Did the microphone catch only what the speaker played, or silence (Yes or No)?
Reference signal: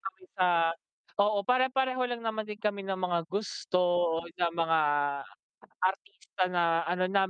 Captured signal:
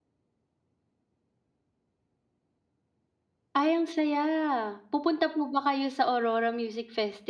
No